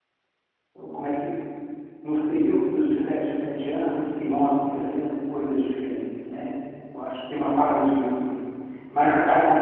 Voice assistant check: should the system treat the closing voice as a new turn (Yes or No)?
No